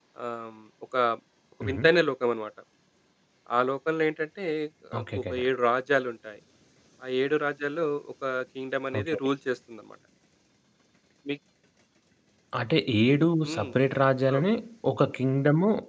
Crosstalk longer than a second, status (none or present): none